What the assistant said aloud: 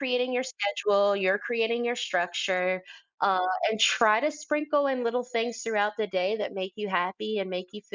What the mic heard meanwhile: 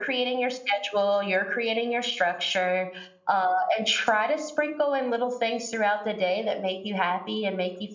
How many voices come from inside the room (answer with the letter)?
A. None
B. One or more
A